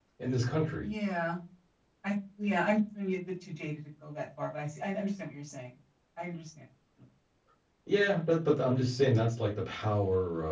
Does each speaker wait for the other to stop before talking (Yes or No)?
Yes